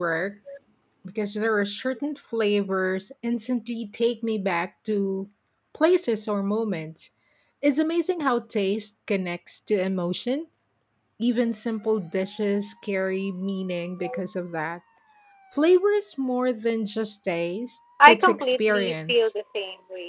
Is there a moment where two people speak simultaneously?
Yes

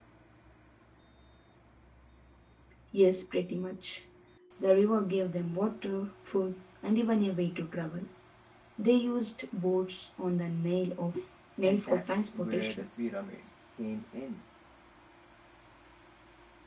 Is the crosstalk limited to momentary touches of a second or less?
No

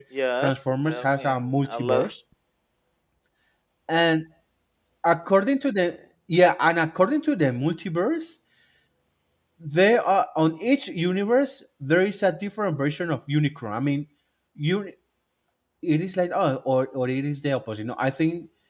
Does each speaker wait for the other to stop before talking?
No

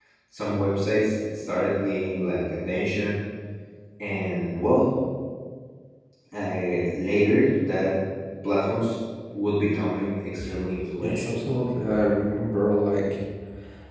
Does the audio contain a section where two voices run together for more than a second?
No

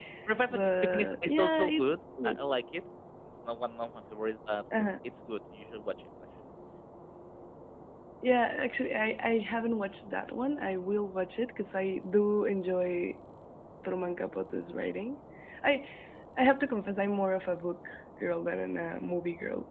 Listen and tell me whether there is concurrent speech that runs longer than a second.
Yes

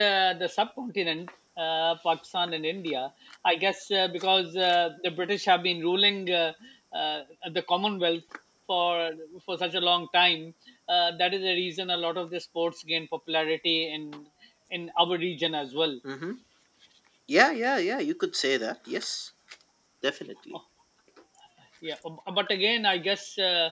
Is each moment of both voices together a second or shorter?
Yes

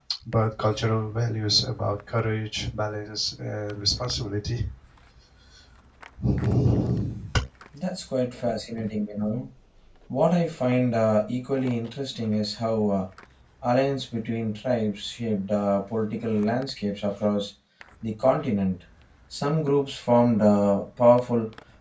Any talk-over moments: No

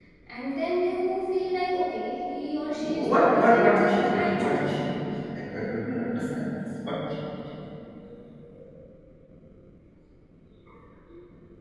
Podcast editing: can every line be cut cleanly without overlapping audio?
No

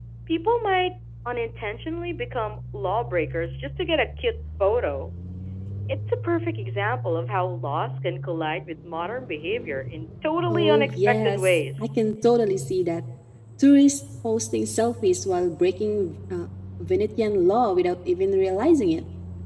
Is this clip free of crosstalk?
No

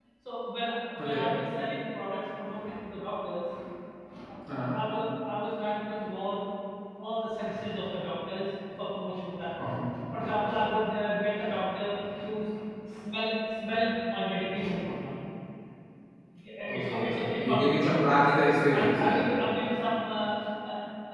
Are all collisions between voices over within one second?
No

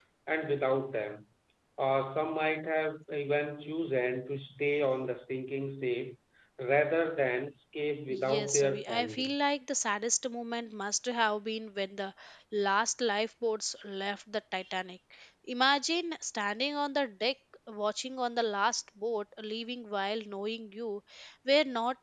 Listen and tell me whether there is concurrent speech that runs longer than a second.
Yes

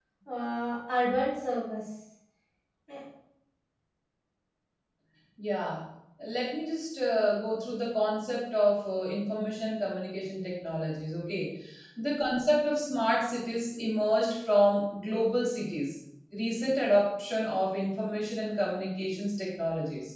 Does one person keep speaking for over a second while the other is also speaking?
No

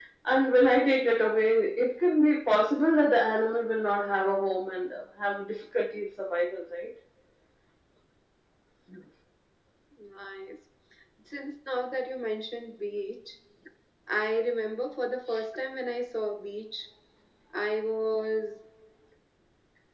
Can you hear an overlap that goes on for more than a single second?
No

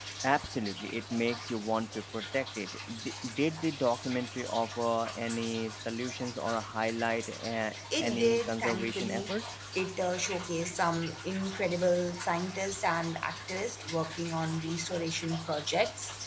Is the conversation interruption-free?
No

